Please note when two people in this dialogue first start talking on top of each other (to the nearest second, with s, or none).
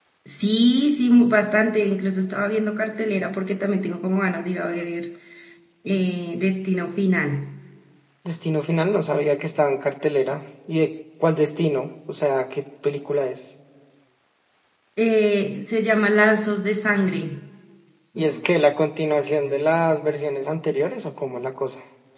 none